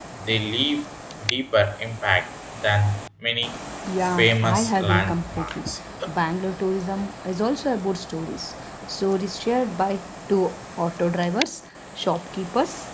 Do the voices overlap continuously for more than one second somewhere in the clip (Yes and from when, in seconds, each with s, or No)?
Yes, from 3.9 s